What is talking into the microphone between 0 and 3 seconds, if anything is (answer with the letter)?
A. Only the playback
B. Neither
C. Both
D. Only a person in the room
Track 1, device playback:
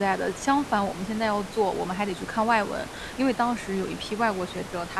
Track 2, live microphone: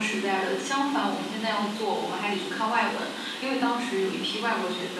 A